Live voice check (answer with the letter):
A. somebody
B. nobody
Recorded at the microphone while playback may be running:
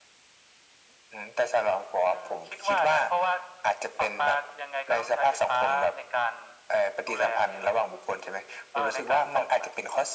B